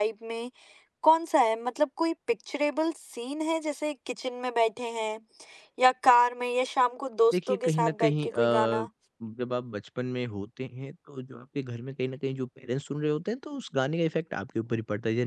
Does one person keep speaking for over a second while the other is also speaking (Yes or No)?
Yes